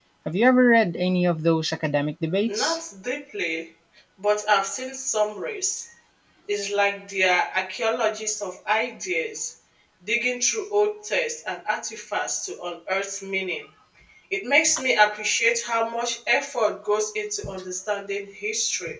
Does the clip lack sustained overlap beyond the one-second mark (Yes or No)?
Yes